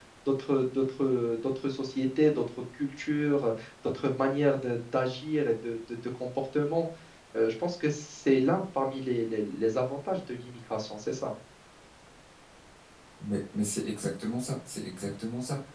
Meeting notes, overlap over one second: none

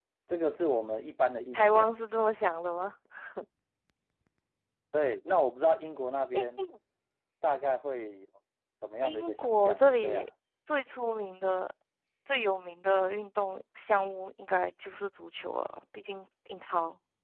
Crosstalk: present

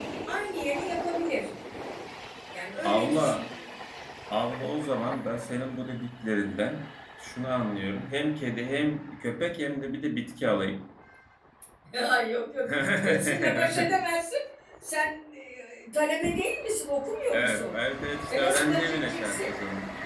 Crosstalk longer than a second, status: present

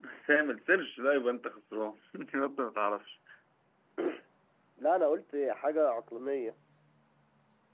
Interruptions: none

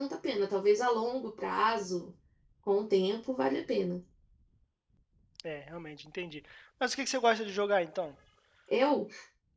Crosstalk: none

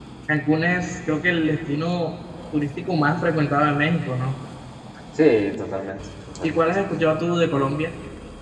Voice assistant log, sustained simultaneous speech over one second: none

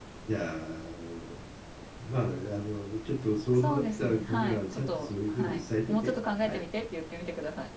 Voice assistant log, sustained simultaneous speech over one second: present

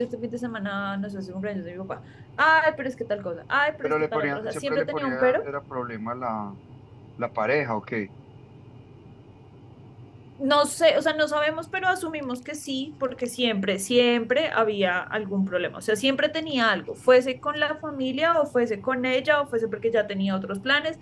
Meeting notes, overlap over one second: present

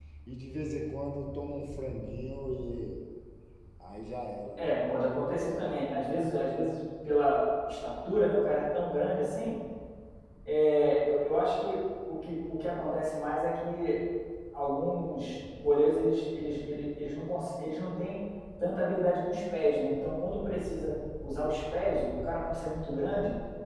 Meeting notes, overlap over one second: none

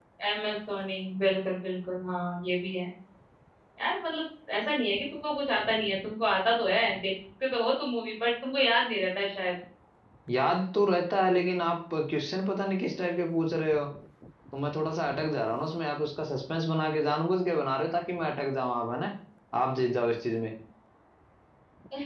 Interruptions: none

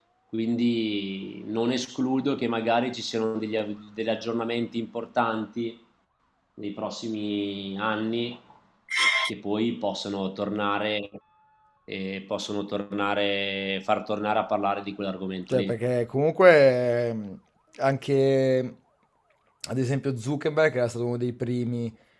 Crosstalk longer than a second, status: none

